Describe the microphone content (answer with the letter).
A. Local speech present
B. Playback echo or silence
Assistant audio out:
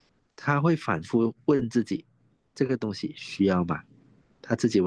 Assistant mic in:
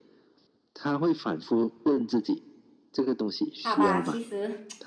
A